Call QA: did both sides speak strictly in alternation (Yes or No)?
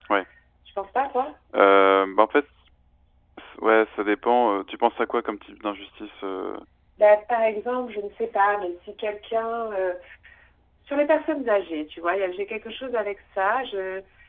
Yes